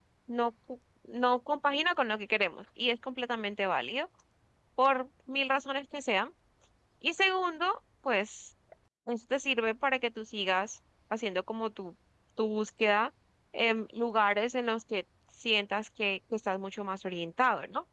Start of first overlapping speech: none

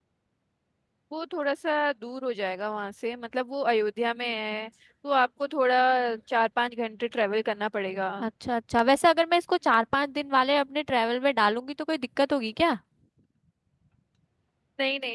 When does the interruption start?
none

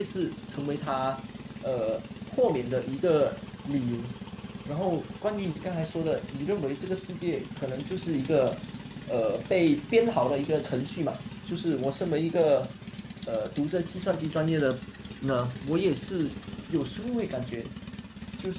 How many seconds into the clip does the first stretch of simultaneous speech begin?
none

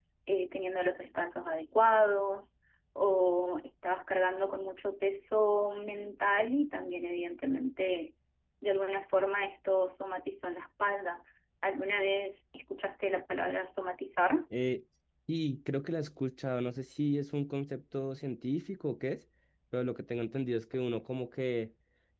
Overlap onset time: none

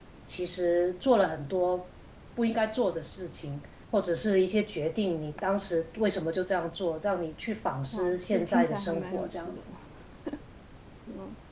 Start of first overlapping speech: 7.9 s

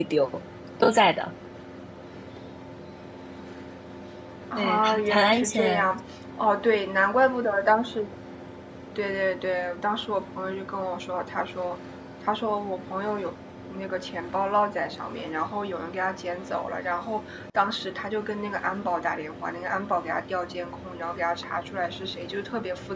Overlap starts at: 4.6 s

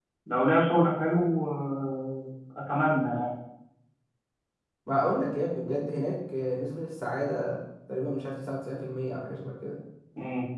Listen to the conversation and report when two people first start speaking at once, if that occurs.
none

